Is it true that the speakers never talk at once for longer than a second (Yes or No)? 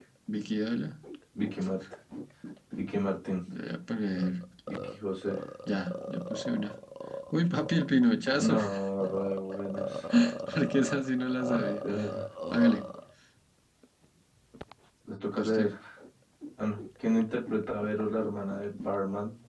Yes